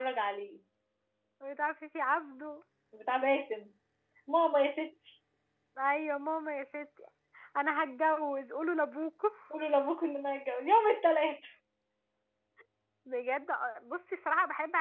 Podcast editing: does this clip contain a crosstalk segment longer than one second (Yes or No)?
No